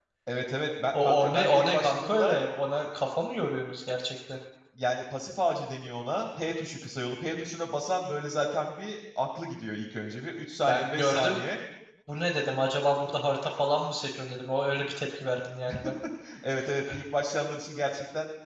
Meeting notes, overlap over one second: present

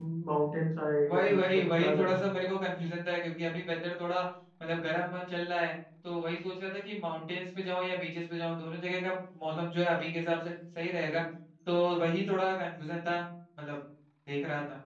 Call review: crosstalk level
present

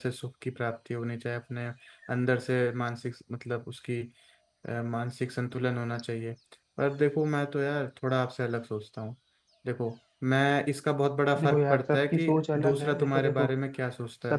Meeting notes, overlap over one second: present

